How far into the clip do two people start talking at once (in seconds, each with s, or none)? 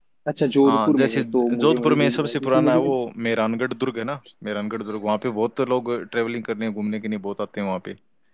0.6 s